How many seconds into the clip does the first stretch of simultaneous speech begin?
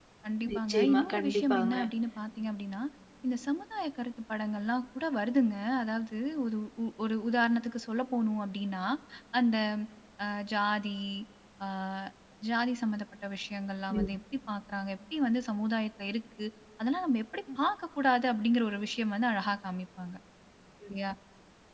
0.5 s

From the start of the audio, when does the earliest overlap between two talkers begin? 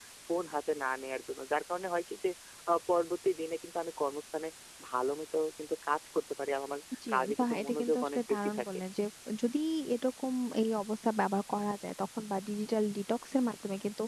7.0 s

